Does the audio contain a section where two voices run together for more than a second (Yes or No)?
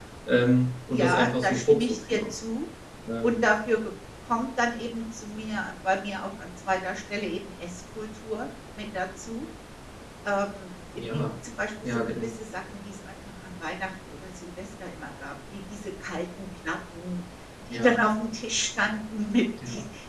Yes